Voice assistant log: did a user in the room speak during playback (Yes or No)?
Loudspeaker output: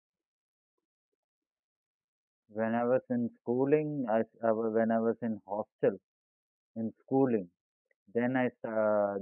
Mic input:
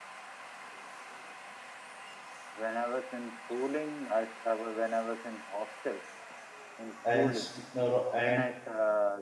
Yes